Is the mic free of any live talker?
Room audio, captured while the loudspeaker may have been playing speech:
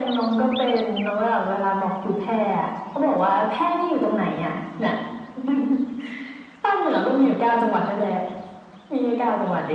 Yes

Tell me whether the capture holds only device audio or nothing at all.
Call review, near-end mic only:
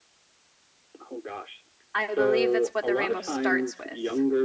No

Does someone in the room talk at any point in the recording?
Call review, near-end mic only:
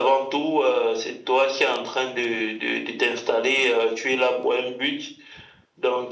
No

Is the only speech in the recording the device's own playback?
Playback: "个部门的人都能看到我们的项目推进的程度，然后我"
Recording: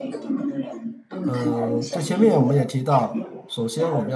No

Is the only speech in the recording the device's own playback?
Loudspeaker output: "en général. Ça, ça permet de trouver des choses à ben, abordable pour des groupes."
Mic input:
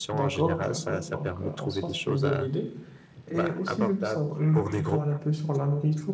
No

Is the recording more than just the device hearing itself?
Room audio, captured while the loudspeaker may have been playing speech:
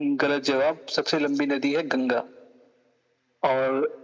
No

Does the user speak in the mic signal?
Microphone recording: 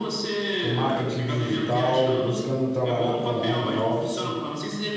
Yes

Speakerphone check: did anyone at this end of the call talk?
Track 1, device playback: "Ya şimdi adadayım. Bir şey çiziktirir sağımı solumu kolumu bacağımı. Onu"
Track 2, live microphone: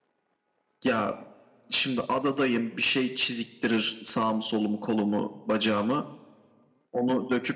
No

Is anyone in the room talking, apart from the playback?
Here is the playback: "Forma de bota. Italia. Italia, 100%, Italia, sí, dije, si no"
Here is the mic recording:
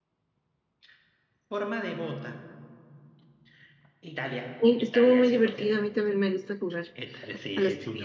Yes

